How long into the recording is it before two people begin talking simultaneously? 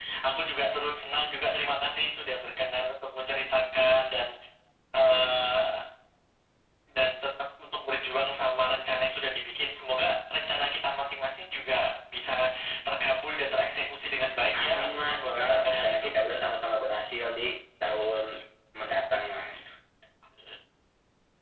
15 s

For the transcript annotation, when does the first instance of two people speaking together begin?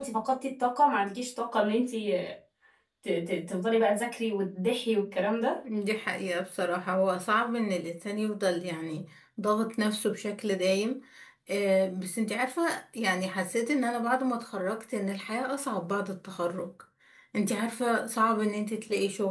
none

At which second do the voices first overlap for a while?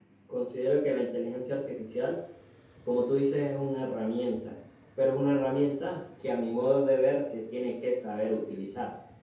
none

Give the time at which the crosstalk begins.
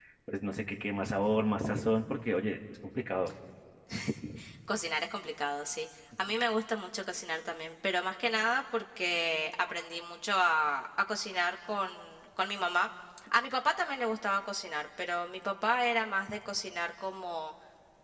none

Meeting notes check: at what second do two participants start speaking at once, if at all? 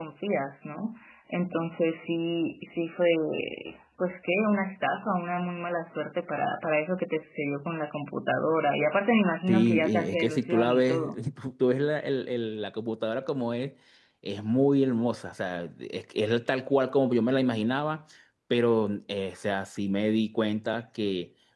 9 s

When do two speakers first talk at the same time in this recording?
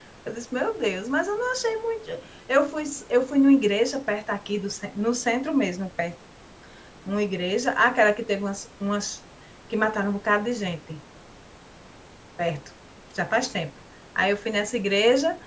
none

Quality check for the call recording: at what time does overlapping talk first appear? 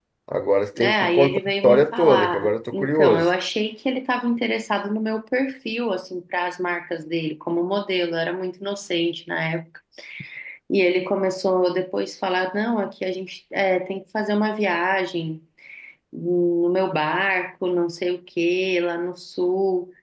1 s

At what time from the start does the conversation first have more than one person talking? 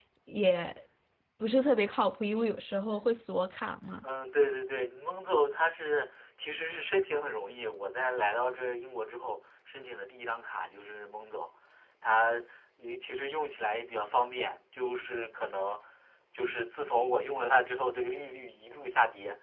none

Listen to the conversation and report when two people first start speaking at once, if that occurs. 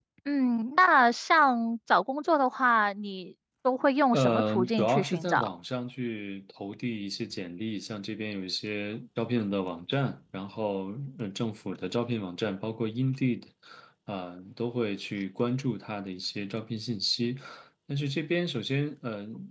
4 s

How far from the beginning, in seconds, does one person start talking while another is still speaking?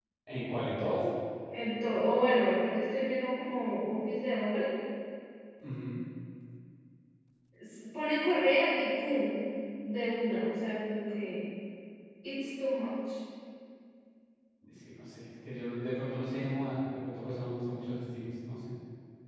none

